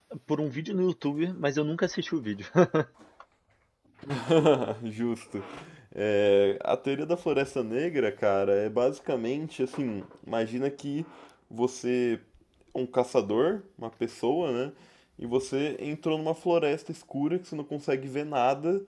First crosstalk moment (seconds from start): none

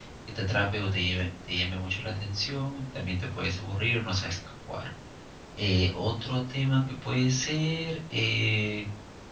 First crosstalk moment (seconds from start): none

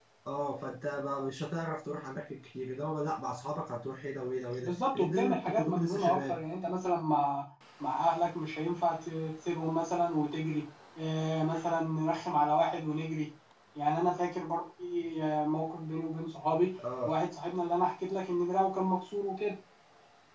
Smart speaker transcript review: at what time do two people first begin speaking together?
4.6 s

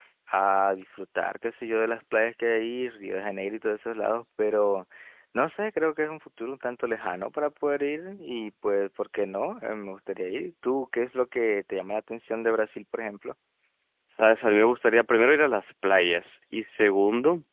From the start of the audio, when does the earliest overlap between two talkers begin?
none

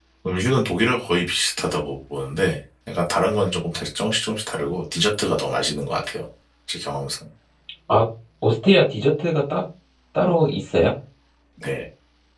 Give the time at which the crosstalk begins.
none

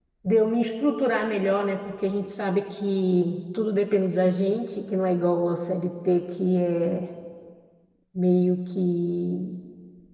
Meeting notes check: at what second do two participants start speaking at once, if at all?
none

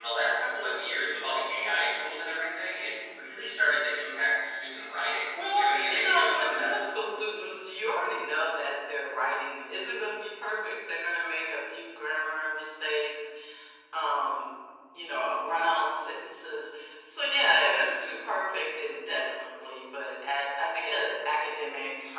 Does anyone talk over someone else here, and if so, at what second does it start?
5.3 s

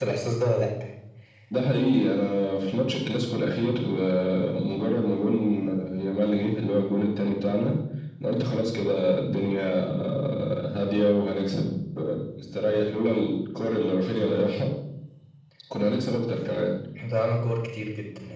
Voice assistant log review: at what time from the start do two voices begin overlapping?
none

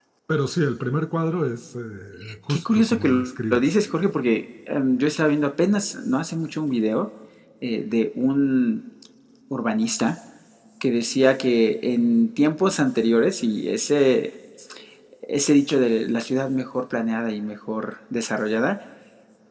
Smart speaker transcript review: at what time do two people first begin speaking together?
2.5 s

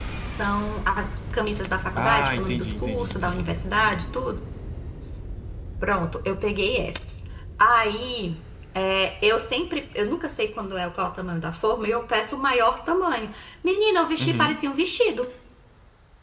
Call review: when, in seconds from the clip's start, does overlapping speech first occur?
2.0 s

